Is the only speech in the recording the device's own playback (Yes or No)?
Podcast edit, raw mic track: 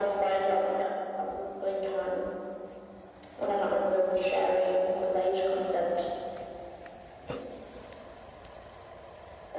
Yes